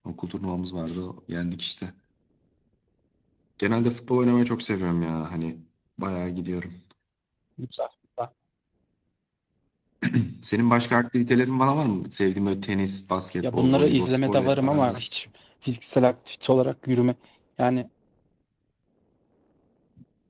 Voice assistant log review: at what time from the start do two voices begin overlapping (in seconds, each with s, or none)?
13.4 s